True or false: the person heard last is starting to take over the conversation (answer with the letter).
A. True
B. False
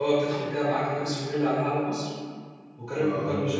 B